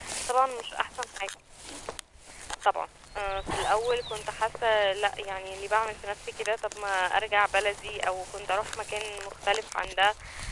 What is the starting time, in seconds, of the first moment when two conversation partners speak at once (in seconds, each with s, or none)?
none